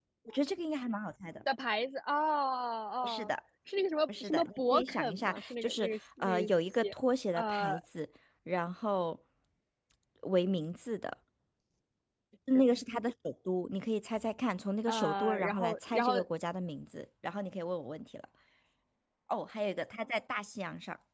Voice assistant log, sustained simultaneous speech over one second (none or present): present